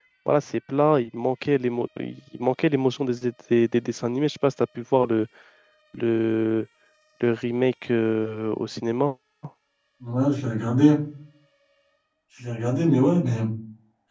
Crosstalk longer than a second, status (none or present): none